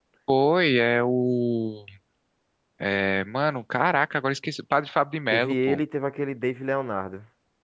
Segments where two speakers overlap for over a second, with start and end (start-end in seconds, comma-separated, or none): none